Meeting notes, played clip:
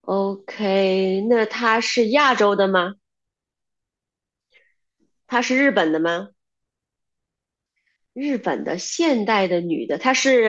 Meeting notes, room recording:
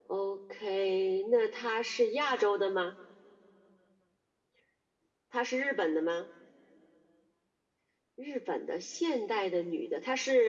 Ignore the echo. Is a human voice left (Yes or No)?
No